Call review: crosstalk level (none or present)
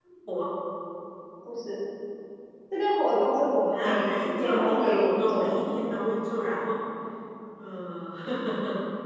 present